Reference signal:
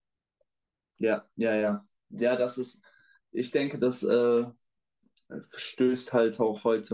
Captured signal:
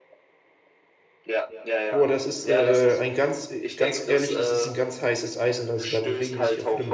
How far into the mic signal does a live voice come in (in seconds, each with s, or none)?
1.9 s